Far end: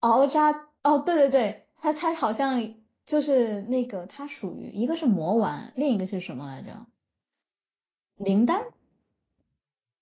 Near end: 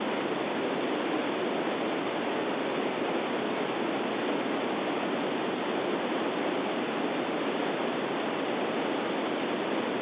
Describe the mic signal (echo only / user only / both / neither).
neither